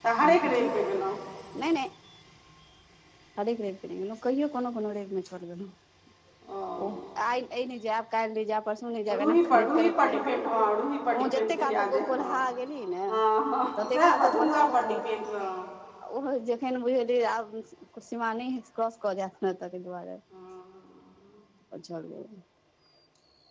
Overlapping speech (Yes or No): Yes